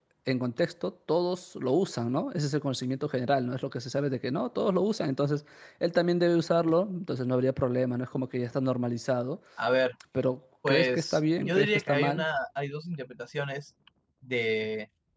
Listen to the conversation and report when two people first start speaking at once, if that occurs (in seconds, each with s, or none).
10.7 s